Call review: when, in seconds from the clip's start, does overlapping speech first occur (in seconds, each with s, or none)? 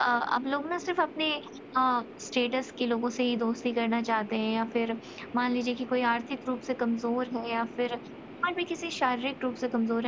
none